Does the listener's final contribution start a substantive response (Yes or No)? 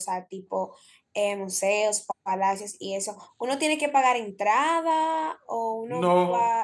Yes